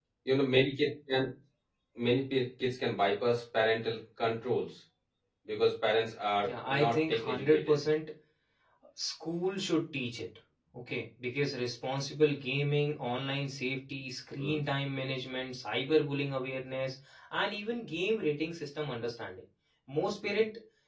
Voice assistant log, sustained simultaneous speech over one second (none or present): present